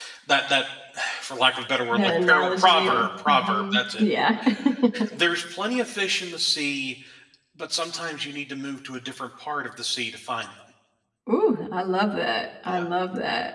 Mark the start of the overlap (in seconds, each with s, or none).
1.9 s